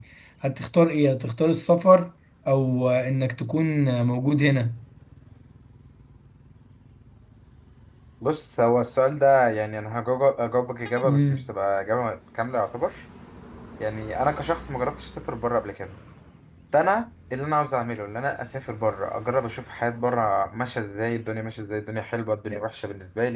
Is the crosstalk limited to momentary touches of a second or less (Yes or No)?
Yes